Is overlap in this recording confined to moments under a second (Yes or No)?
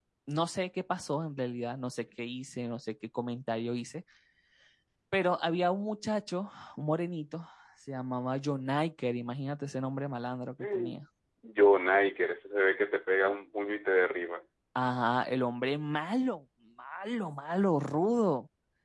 Yes